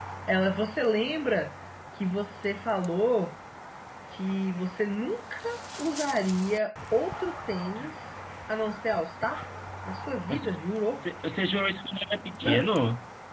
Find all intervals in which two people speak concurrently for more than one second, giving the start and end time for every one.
none

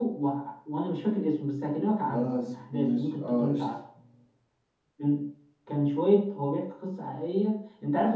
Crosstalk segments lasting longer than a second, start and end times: 2.1-3.7

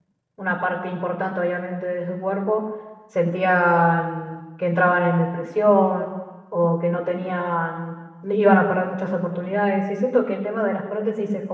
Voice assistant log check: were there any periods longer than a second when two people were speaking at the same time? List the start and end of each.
none

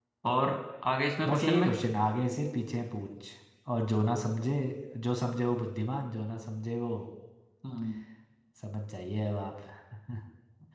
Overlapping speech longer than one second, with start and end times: none

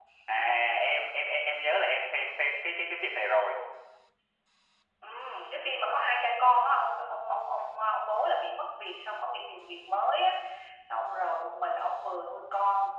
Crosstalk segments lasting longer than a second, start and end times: none

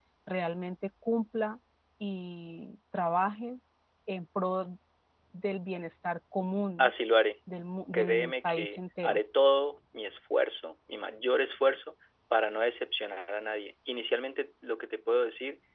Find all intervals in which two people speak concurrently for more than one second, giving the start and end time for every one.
7.9-9.2

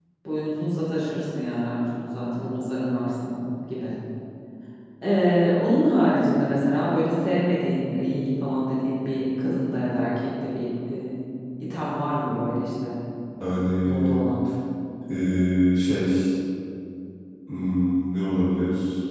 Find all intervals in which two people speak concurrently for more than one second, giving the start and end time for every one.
none

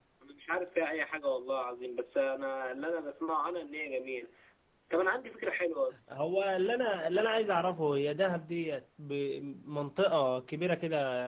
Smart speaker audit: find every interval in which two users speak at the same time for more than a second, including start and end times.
none

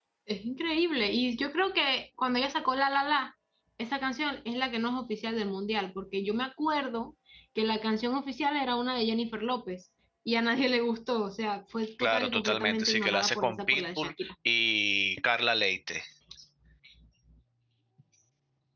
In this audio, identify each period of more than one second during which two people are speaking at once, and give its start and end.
12.0-14.3

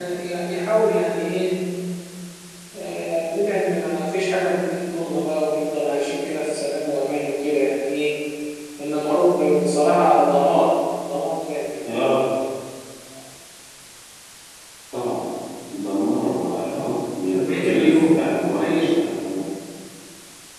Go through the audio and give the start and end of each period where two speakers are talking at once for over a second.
17.4-18.9

